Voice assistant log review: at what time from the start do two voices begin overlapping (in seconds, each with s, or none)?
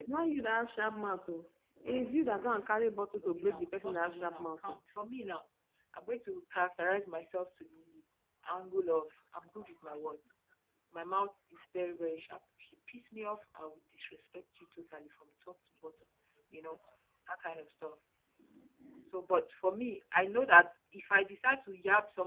3.4 s